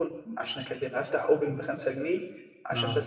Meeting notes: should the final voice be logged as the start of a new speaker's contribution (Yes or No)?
No